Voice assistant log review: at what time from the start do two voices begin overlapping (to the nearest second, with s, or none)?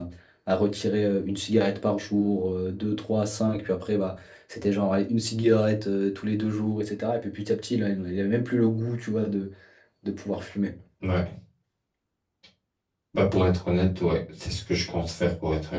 none